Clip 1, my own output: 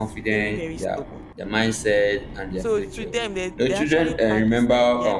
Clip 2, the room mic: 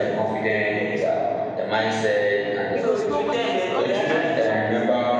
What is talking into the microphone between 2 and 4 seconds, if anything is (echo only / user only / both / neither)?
both